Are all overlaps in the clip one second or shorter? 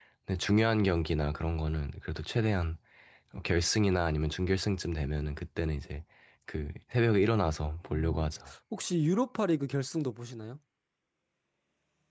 Yes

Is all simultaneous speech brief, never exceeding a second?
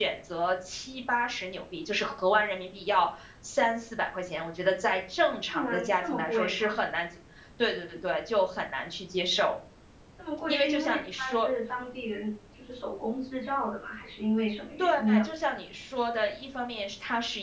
No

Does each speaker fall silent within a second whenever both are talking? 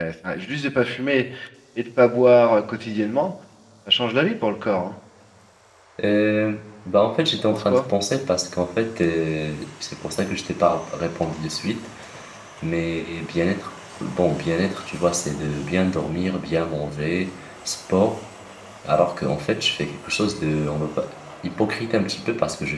Yes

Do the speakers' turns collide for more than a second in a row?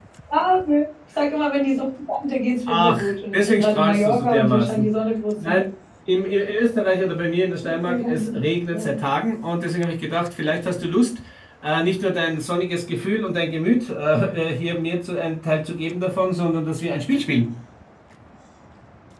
Yes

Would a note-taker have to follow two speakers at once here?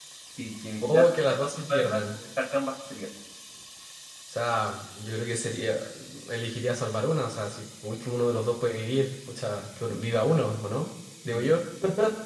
Yes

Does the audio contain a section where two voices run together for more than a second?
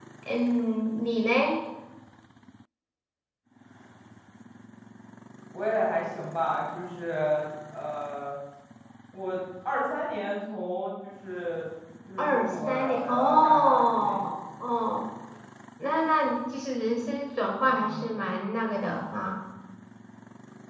Yes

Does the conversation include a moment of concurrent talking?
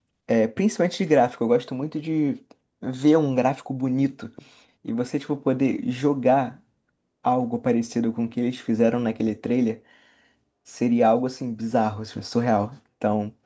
No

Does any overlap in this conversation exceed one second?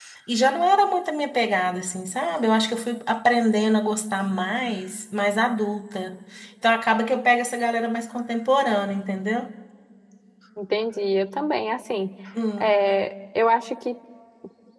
No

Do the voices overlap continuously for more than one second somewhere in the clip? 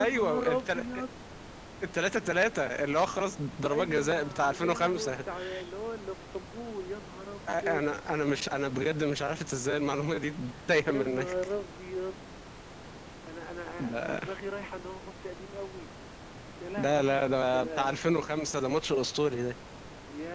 Yes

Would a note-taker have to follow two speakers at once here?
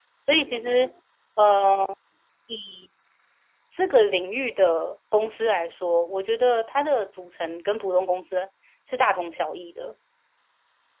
No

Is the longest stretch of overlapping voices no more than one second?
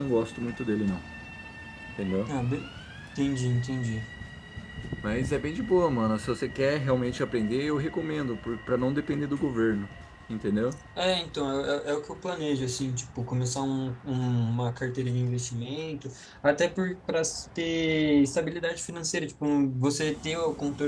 Yes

